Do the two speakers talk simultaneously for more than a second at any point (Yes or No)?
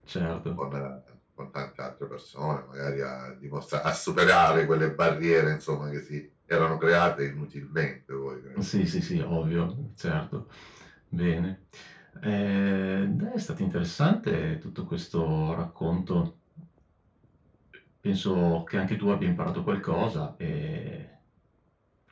No